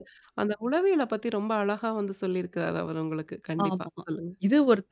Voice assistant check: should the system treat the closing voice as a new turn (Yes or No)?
Yes